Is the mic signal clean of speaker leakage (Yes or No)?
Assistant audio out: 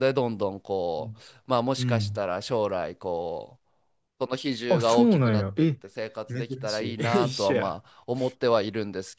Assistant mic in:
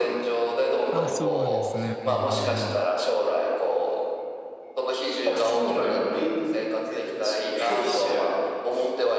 No